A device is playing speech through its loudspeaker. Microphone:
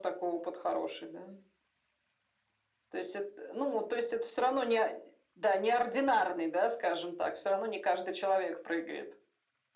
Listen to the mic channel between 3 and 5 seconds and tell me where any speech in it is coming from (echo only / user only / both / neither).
echo only